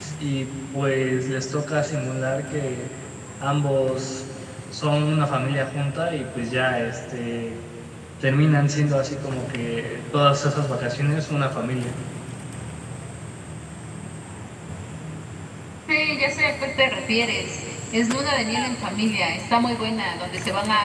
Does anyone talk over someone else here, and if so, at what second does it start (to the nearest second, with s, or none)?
none